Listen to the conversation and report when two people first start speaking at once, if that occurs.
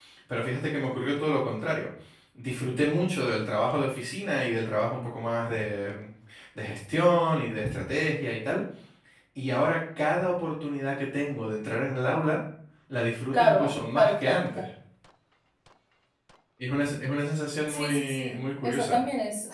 13.3 s

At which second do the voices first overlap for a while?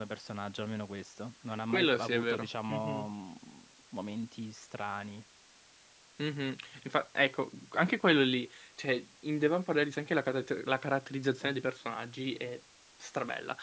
1.7 s

